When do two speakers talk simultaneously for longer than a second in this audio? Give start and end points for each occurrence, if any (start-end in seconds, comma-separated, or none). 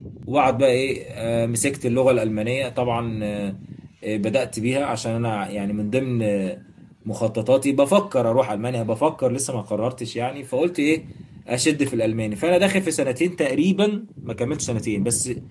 none